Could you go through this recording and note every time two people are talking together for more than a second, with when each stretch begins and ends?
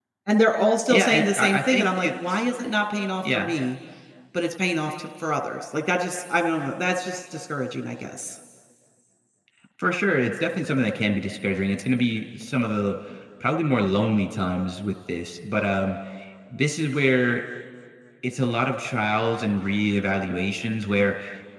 0.9-2.4

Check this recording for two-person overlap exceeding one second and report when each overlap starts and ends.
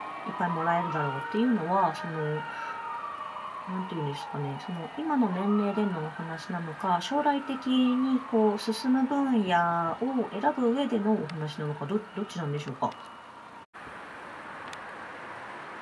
none

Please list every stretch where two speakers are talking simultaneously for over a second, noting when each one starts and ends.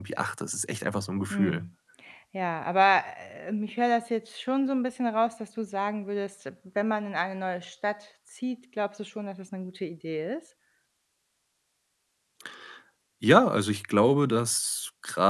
none

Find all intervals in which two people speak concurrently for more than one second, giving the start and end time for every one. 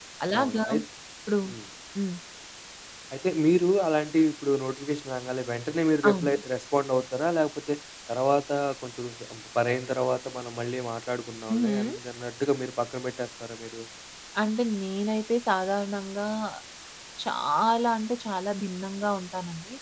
none

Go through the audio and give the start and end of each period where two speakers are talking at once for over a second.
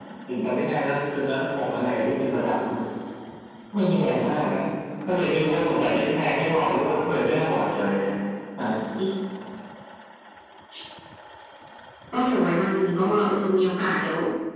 none

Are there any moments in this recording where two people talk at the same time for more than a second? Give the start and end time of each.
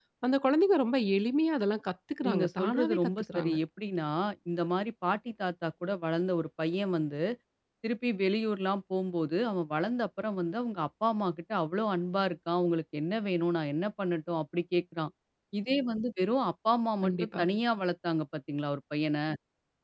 2.2-3.5

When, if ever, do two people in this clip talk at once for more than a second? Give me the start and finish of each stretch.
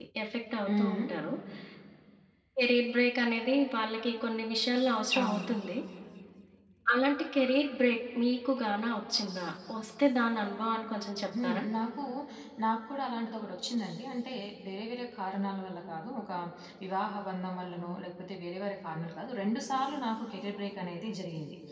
none

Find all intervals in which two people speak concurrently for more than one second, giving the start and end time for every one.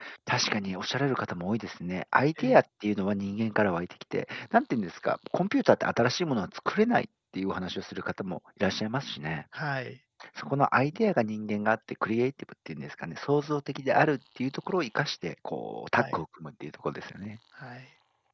none

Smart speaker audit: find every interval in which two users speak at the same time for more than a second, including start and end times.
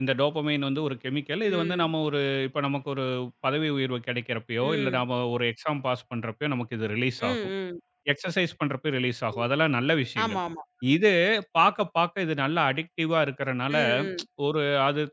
none

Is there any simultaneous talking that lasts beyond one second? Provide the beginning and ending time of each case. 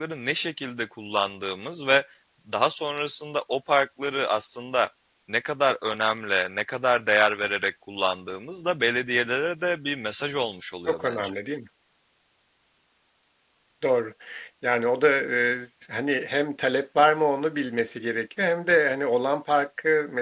none

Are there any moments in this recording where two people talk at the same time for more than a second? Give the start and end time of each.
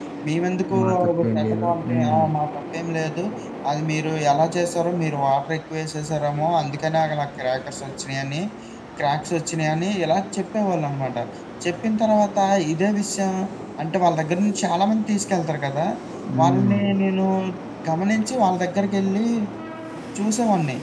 0.8-2.2

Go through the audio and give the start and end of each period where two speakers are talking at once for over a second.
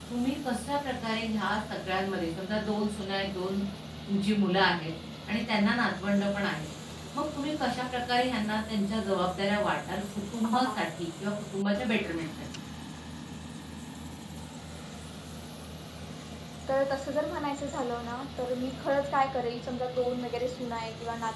none

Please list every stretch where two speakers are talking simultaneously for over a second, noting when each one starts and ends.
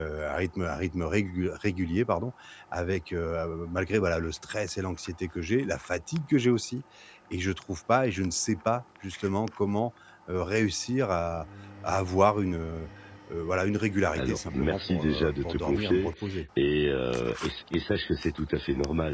14.2-16.1

